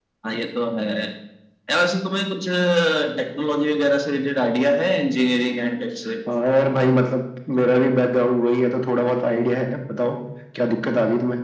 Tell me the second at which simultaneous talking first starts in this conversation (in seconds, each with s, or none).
none